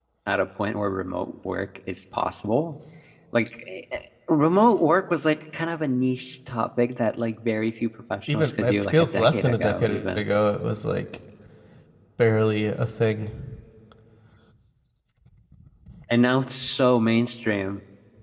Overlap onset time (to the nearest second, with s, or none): 8 s